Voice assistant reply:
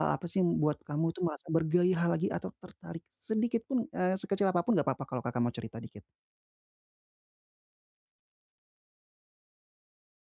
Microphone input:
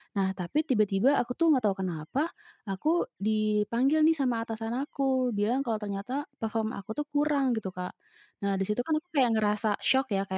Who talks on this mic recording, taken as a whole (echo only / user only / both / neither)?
user only